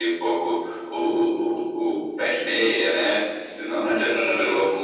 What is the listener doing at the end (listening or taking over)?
listening